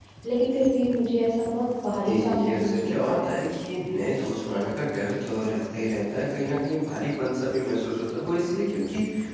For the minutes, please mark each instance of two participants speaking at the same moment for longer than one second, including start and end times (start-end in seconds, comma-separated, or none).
2.1-3.3